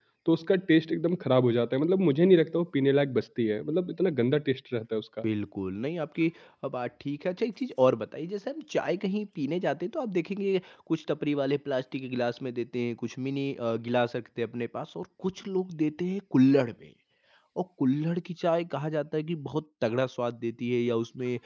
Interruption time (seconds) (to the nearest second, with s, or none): none